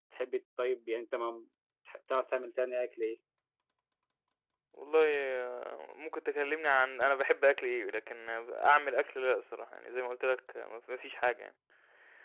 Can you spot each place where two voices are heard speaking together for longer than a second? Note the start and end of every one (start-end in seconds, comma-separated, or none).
none